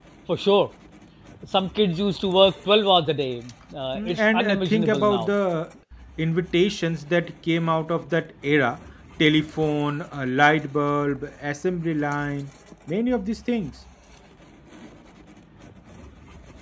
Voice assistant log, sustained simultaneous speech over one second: present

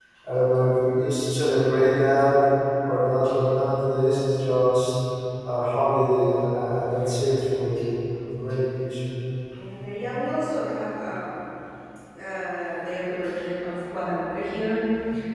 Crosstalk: none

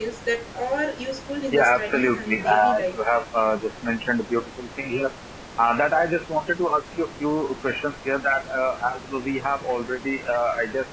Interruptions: present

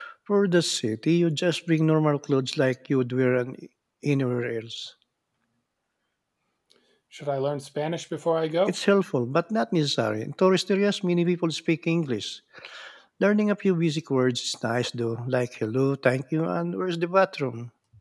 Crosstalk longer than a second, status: none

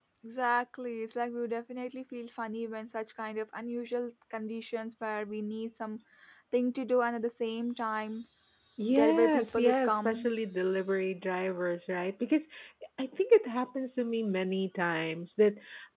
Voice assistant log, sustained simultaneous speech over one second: present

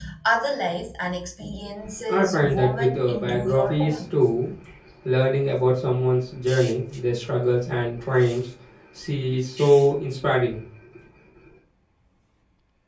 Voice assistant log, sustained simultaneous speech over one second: present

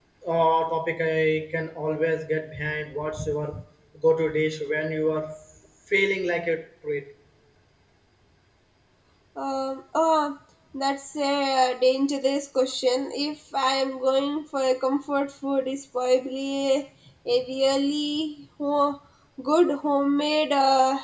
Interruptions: none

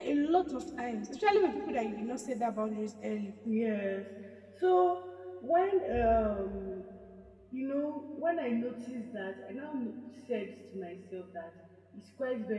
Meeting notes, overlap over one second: none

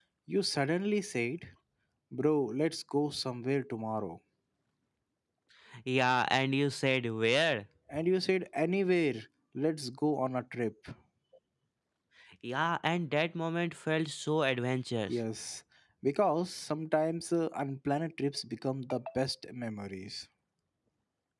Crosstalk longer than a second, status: none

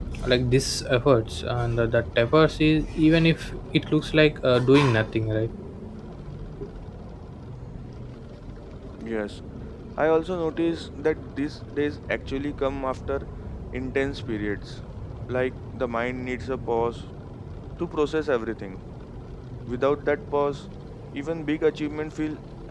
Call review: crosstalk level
none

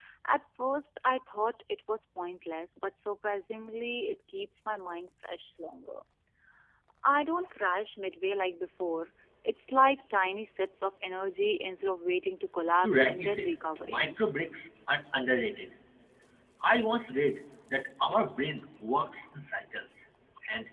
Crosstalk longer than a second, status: present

